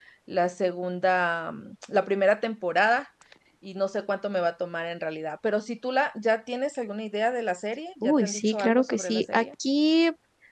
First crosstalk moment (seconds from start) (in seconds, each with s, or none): 8.0 s